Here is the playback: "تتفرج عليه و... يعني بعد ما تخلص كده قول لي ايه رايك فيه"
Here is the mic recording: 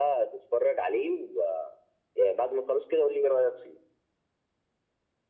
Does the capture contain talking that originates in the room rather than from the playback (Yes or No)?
No